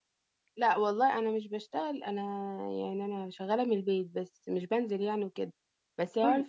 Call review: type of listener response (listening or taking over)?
listening